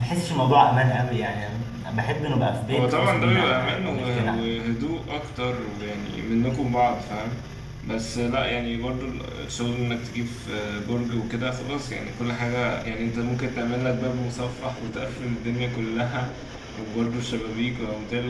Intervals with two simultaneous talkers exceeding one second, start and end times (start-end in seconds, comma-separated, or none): 2.7-4.5